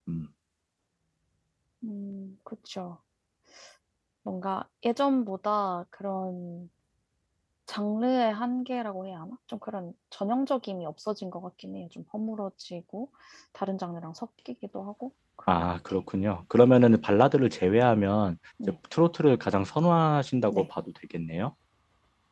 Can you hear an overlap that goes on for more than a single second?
No

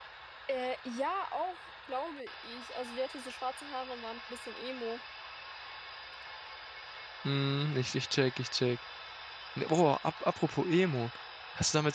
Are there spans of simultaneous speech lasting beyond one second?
No

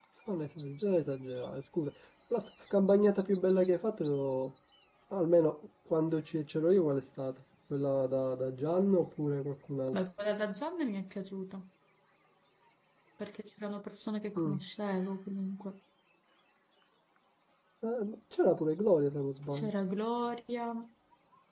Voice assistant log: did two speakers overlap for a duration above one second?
No

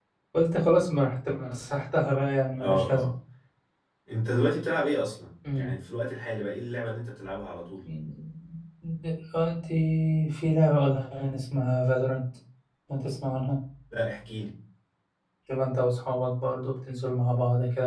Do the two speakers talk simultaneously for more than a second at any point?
No

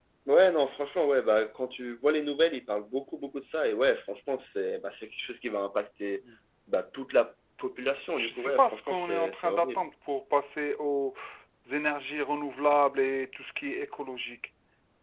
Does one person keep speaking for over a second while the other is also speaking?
Yes, from 8.2 s

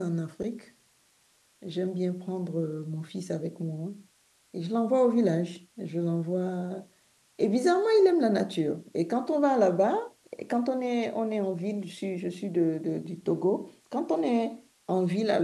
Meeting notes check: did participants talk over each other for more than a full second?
No

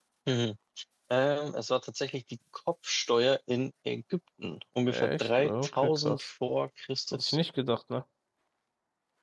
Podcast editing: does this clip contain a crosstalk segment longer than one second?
Yes, from 4.9 s

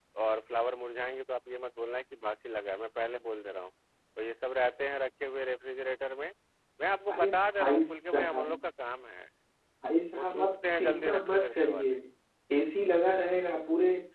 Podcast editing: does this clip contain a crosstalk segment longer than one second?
Yes, from 7.1 s

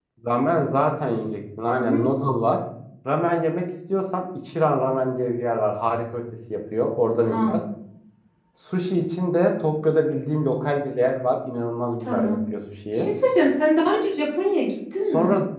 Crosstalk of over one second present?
No

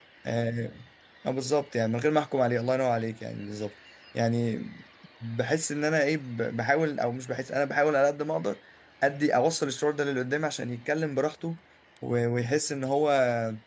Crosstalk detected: No

